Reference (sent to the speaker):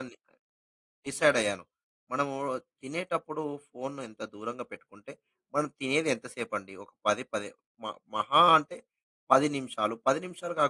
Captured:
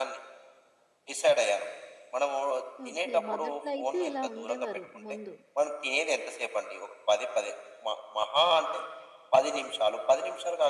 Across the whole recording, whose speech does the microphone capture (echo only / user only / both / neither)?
both